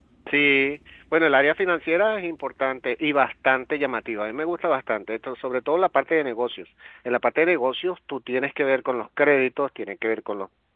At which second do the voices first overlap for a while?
none

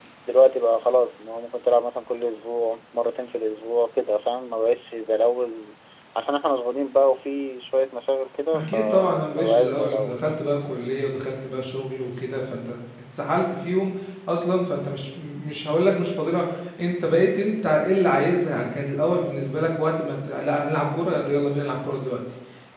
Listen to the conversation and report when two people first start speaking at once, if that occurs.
8.5 s

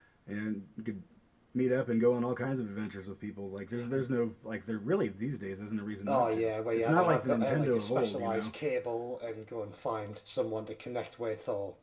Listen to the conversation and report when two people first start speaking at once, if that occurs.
6.1 s

